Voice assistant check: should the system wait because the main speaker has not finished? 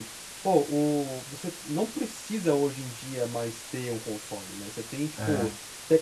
Yes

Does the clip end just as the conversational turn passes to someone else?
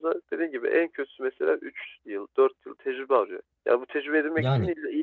No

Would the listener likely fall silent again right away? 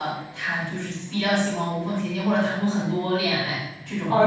No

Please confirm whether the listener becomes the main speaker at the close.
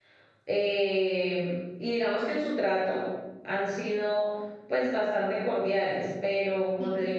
No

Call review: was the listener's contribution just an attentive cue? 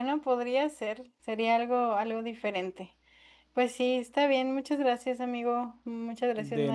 No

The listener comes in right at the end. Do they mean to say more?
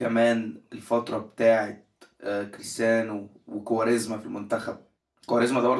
No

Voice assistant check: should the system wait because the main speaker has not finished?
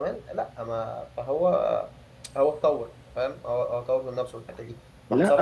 No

